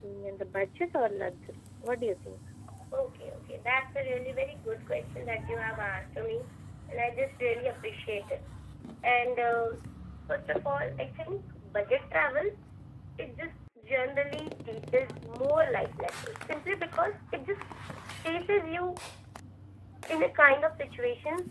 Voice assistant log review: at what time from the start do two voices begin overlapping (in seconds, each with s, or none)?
none